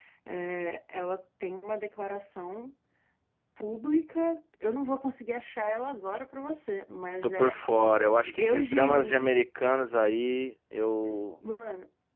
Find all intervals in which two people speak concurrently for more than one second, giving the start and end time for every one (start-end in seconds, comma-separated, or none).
8.2-9.4